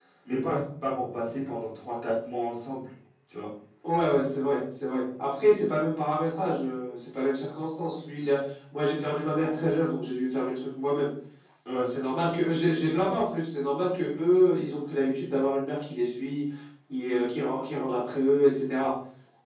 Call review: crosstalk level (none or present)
none